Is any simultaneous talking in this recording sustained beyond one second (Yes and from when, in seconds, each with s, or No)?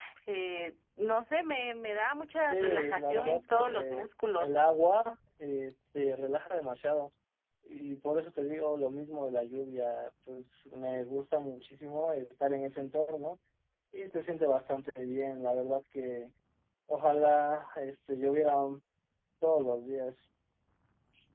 Yes, from 2.5 s